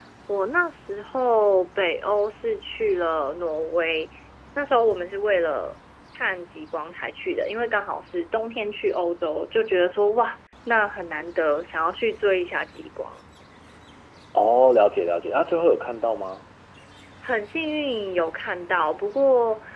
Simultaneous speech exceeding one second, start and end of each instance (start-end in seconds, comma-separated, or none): none